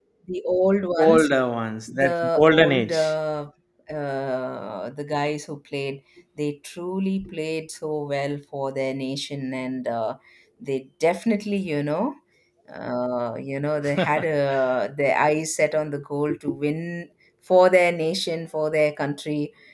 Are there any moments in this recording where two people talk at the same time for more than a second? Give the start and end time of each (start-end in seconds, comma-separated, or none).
1.9-3.1